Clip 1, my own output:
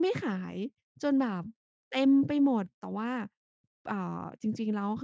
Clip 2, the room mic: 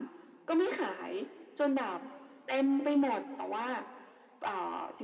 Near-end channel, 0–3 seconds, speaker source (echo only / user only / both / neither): echo only